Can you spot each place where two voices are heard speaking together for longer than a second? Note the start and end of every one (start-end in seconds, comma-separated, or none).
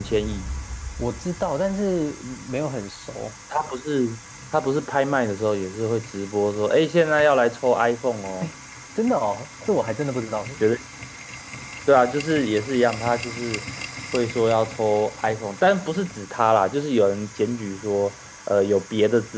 none